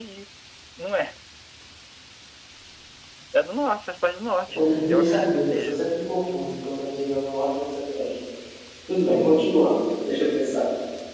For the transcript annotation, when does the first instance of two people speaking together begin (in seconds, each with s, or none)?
4.5 s